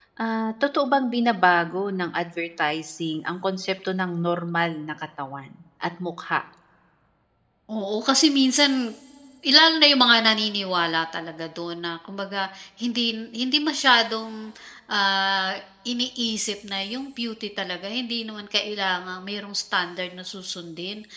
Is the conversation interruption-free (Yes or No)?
Yes